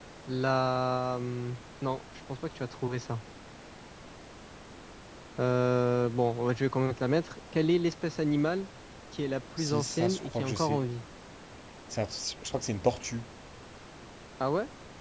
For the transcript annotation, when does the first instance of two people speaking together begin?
10 s

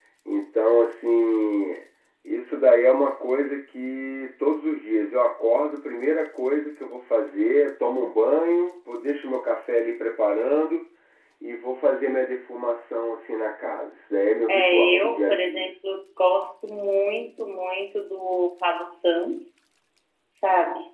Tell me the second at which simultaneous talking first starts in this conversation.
14 s

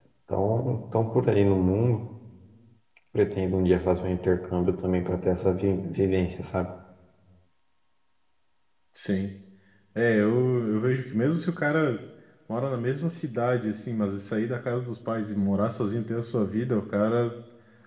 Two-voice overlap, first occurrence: none

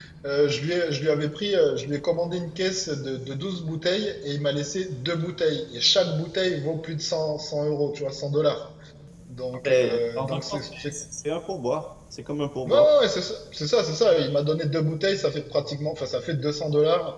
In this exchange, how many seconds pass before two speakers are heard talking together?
10 s

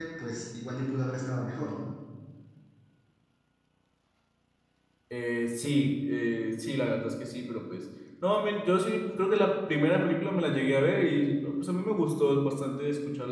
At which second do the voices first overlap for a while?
none

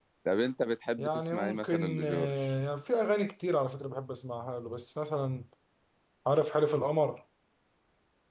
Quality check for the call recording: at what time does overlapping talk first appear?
1 s

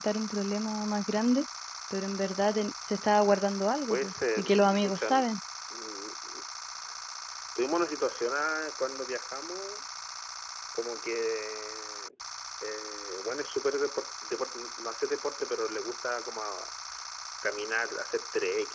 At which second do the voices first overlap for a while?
4 s

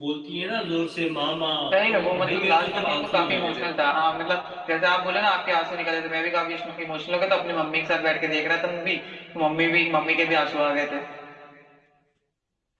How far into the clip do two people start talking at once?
2 s

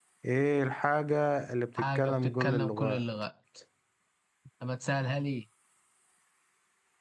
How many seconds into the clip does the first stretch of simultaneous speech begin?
2 s

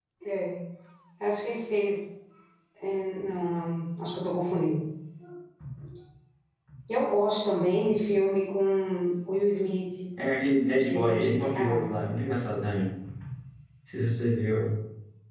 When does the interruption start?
11 s

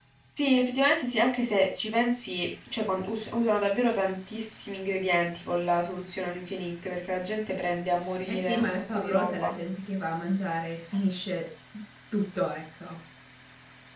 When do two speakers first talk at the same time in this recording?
8 s

